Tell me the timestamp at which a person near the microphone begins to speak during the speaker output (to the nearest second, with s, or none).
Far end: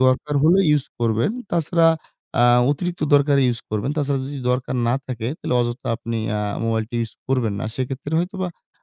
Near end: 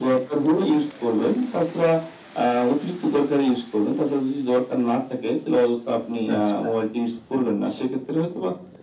6 s